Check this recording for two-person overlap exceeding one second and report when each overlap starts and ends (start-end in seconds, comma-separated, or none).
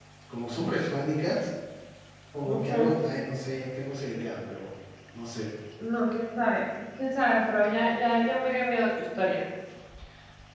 none